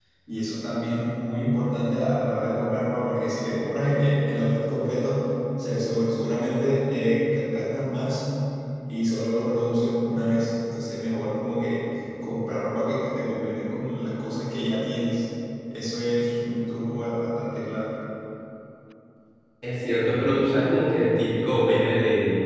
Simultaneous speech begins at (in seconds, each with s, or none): none